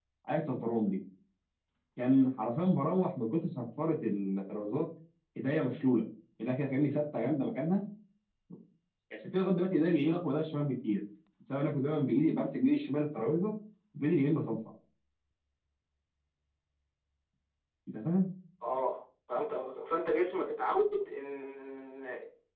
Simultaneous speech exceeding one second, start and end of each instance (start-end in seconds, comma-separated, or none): none